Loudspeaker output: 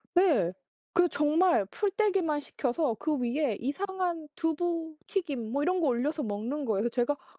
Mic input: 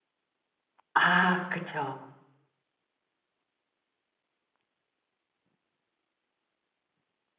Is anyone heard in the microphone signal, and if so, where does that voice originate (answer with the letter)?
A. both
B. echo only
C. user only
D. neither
C